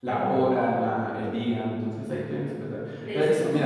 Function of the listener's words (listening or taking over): listening